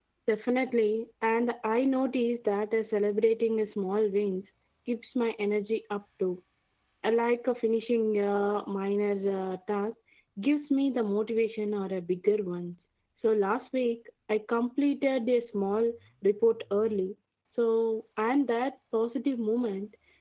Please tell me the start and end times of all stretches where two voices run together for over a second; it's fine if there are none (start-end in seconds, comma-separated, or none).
none